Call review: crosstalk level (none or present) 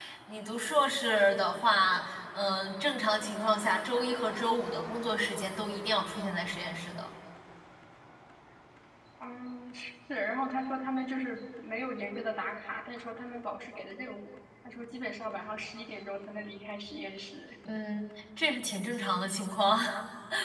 none